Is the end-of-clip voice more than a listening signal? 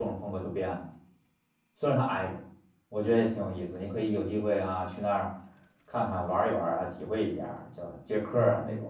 Yes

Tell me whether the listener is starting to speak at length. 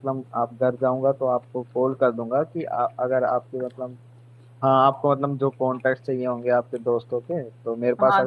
Yes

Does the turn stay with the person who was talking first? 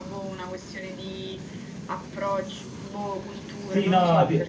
No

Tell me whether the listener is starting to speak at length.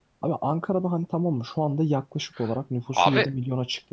No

